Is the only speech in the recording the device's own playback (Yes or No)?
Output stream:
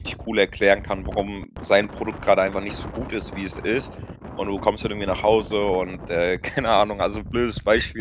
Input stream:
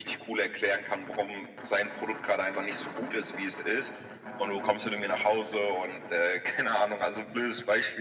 Yes